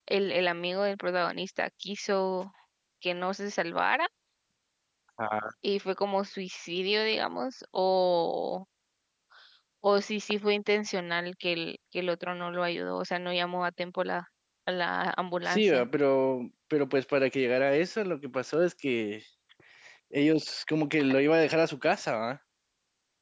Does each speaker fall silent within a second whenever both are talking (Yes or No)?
Yes